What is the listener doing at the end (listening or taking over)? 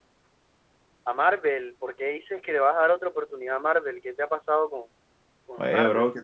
taking over